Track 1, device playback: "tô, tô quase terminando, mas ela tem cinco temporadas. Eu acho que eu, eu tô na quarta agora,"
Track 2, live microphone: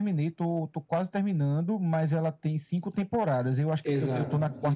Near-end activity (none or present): present